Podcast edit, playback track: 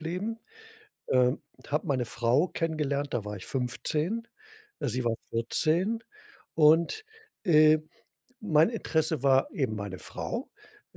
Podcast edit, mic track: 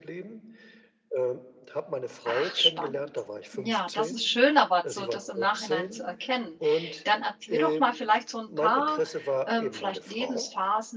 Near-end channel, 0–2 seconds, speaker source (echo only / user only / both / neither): echo only